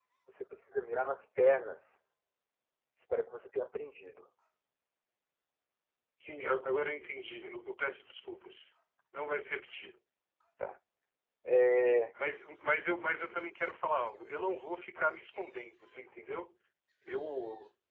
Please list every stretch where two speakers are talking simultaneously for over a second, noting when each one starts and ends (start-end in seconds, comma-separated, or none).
none